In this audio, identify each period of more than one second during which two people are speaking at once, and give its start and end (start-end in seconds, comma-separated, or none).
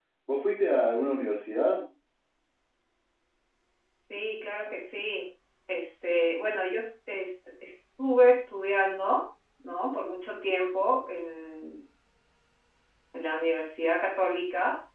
none